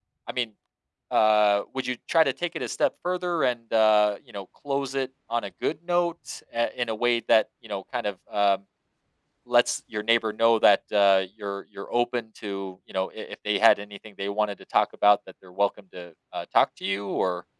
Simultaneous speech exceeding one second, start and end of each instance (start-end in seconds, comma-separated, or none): none